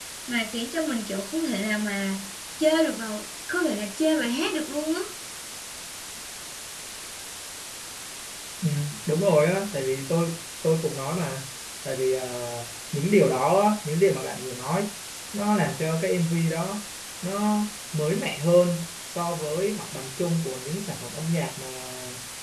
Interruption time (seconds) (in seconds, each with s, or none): none